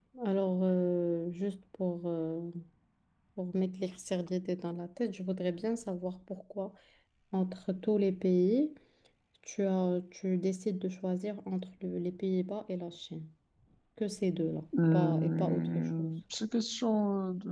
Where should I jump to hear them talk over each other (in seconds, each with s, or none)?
14.7 s